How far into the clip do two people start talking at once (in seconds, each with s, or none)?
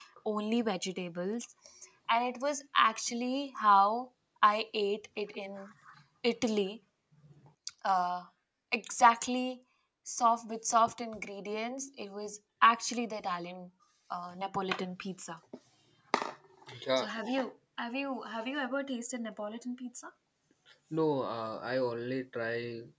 none